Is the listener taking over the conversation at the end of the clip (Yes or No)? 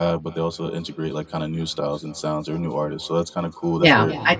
Yes